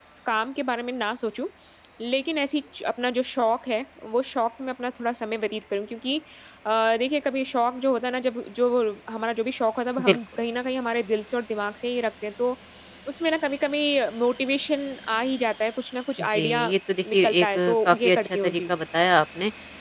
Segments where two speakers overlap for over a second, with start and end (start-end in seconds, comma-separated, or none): 17.1-18.5